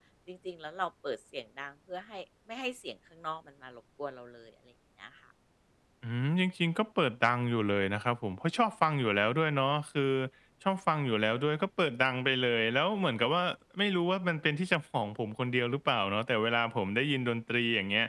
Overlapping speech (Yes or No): No